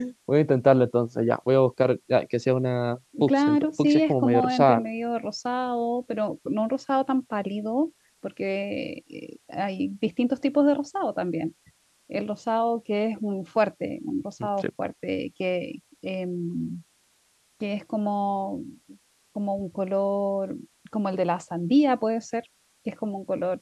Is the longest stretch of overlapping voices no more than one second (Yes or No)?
No